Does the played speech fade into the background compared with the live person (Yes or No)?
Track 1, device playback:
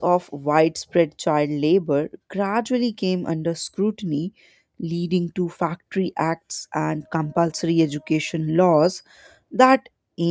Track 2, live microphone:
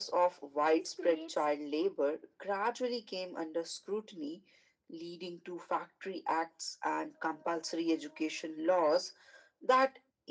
No